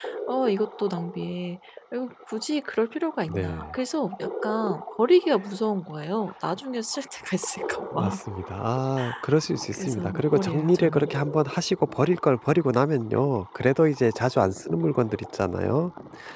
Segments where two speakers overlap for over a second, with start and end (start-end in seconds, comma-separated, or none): 9.7-11.1